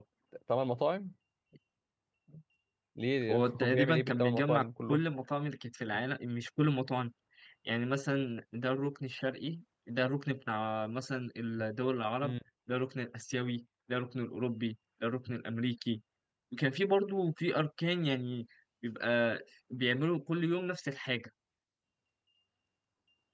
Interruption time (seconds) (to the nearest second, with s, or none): 3 s